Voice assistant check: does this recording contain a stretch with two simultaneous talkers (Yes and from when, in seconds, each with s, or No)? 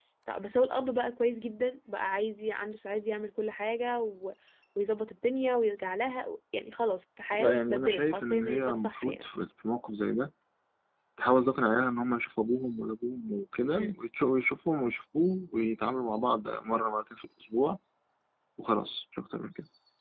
Yes, from 7.3 s